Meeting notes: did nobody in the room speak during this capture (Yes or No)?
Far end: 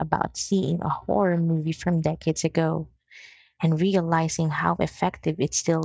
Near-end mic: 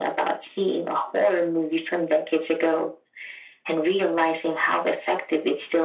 Yes